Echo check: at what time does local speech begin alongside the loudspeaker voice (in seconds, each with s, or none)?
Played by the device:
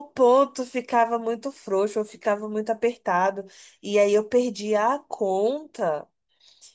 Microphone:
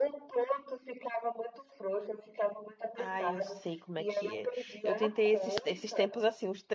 3.0 s